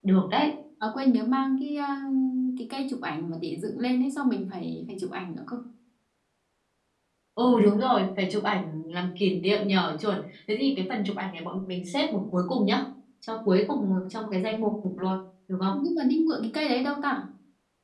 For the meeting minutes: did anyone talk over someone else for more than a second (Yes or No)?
No